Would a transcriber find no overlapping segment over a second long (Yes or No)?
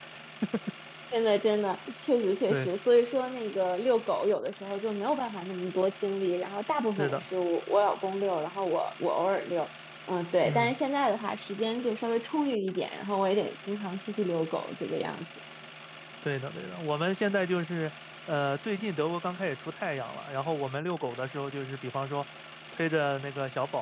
Yes